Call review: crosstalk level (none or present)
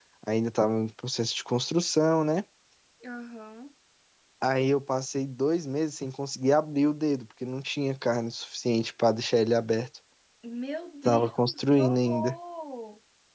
present